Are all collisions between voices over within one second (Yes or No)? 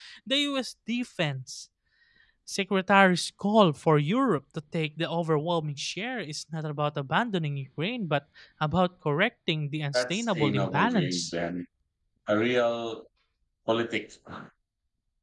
No